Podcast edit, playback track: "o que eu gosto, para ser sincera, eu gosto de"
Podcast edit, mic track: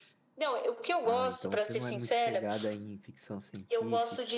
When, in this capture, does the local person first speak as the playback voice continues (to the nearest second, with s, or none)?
1 s